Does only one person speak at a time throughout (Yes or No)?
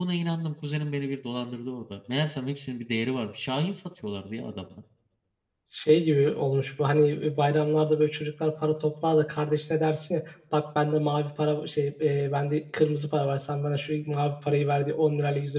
Yes